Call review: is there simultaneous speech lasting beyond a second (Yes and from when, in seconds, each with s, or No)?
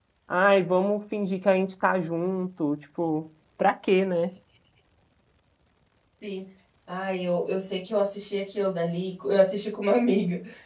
No